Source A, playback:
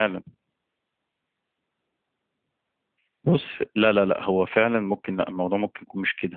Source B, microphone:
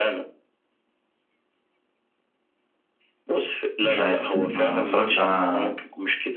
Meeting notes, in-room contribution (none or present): present